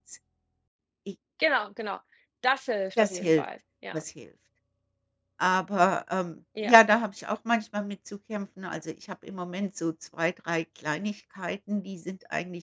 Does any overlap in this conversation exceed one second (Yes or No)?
No